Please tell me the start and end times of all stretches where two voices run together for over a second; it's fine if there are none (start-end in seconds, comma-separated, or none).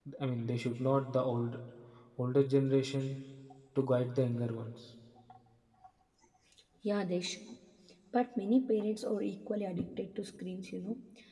none